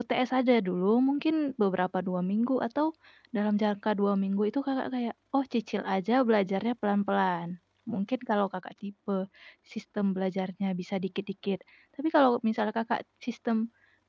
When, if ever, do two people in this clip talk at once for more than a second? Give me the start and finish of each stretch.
none

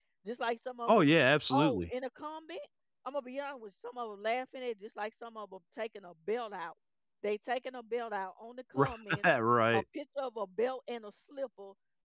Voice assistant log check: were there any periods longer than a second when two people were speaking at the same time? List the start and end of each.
none

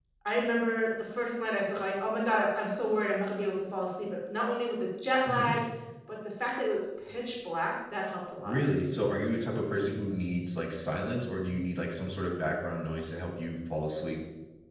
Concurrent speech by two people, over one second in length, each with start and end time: none

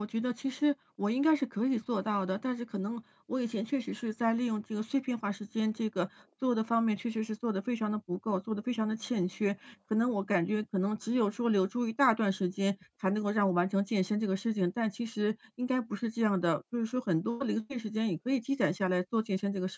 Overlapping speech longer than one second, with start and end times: none

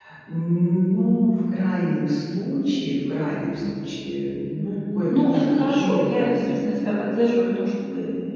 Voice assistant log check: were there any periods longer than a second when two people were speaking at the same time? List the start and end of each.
5.1-6.6

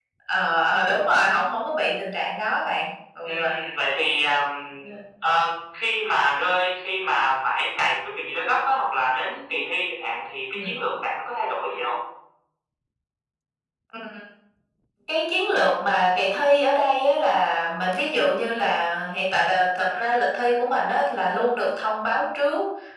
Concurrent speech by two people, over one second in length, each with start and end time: none

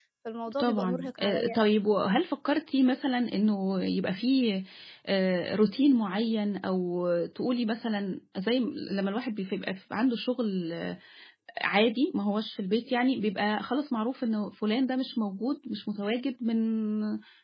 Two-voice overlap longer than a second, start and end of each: 0.6-1.8

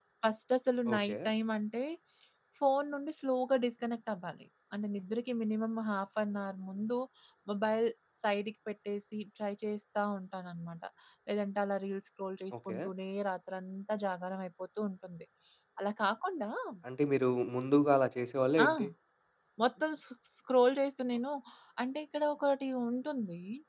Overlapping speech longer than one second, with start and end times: none

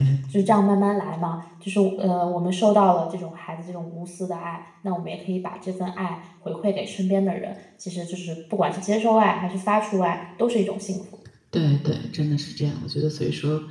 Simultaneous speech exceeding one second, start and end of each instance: none

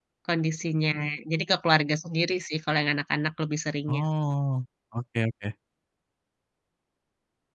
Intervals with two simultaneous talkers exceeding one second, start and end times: none

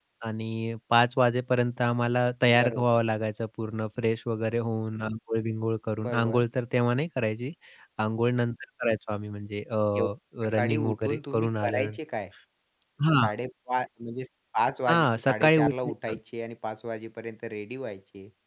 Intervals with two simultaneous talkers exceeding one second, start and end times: 10.6-12.0, 14.9-16.2

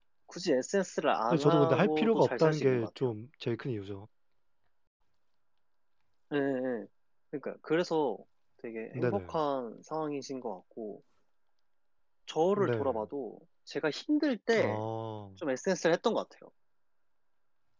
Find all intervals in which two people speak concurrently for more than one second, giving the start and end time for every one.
1.3-3.1

